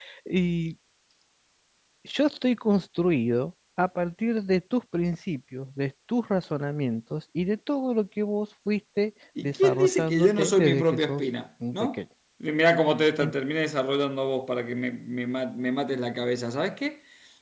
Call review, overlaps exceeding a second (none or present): present